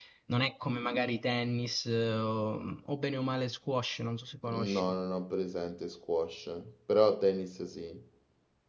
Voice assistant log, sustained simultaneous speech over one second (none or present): none